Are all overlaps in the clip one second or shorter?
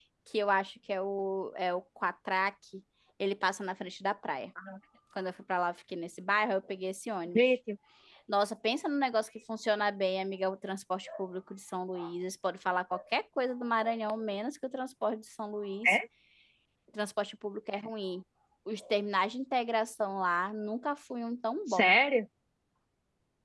Yes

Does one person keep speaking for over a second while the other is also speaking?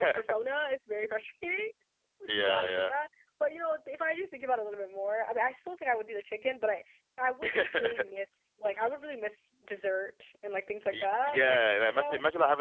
Yes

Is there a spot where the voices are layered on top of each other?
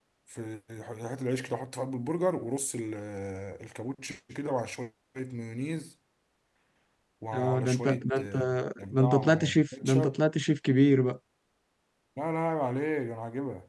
Yes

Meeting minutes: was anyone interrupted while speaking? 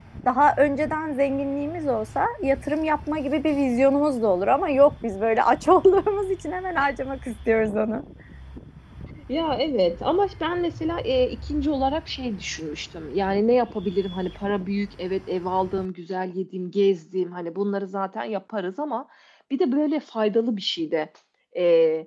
No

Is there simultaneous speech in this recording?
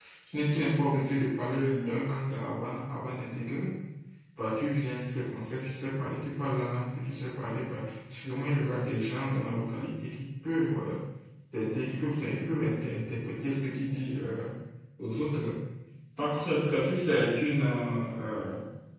No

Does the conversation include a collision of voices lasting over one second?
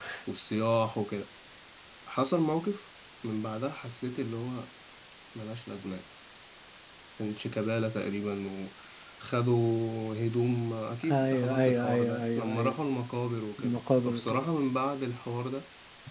Yes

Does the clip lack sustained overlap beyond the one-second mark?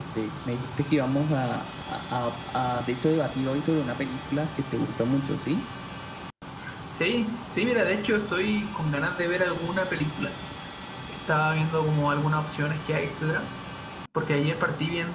Yes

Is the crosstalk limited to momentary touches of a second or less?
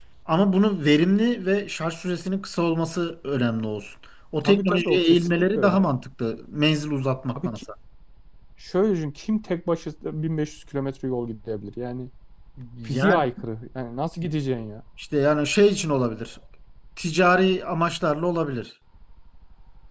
No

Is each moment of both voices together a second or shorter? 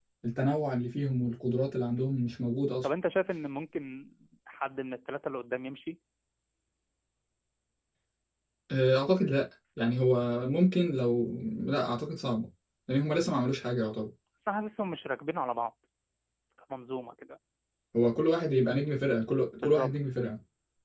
Yes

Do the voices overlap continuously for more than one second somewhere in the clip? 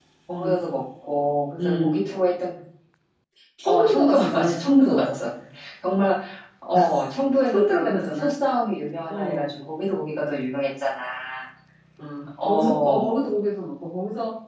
Yes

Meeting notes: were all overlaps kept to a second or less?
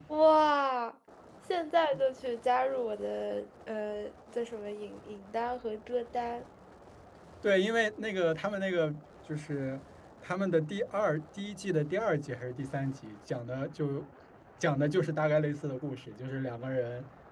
Yes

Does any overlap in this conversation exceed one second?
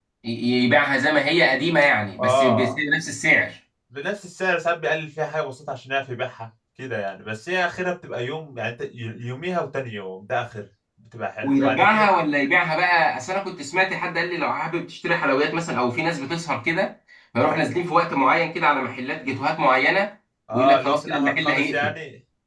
Yes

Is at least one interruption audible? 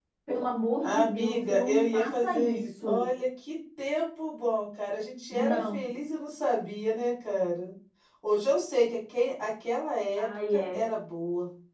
Yes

